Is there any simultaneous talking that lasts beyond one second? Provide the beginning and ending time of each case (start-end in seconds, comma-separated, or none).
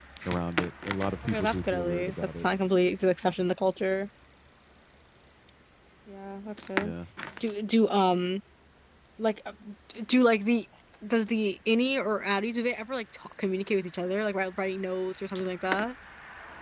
1.2-2.5